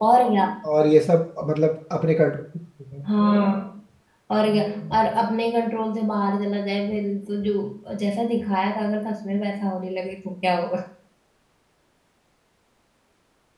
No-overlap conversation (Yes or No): Yes